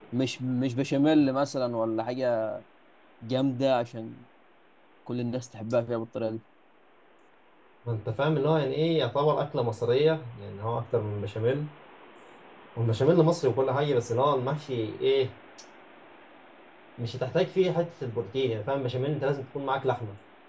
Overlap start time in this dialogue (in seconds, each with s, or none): none